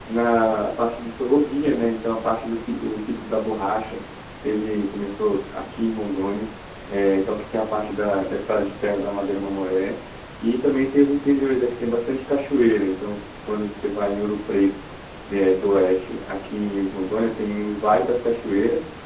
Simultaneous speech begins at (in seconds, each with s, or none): none